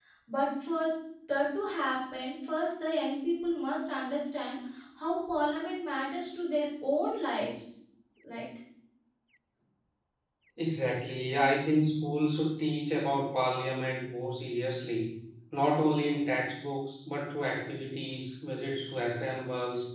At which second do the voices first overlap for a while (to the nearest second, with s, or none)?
none